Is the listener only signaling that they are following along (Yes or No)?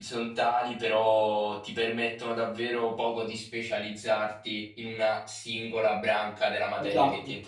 No